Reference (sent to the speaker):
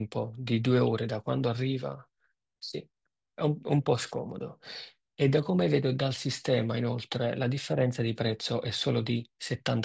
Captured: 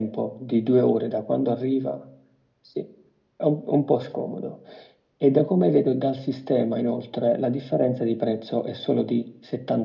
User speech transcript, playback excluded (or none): none